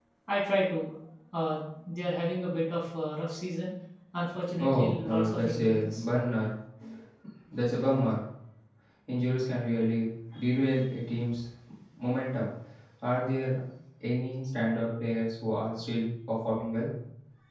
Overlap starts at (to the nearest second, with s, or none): 5 s